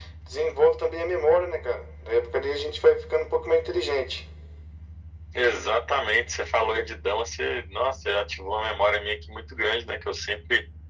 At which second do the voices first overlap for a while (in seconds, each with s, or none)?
none